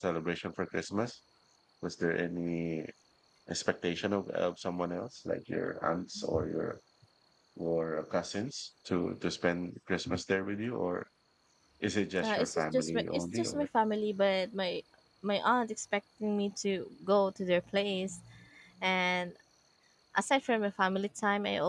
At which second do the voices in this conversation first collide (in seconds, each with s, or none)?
12.2 s